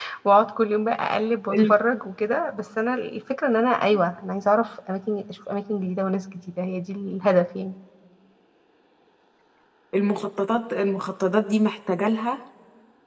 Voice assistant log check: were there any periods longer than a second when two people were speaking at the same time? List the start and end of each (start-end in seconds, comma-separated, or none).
none